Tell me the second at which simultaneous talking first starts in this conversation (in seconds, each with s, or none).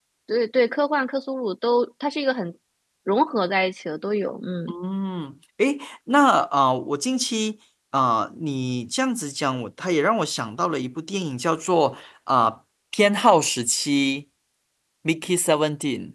none